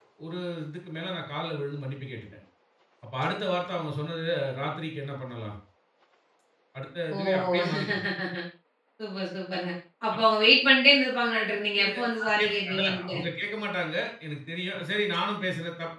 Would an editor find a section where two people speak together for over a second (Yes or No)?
Yes